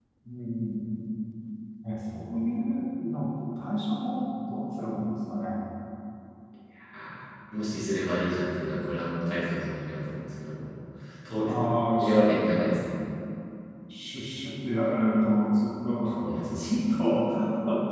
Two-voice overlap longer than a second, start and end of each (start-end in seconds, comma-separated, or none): none